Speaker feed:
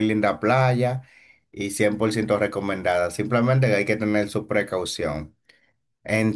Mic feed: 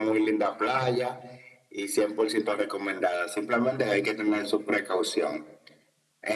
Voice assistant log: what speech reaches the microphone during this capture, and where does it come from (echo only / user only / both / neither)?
echo only